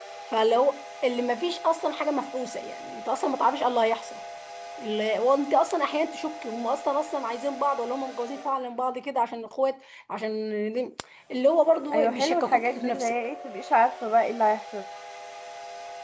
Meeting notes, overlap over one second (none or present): present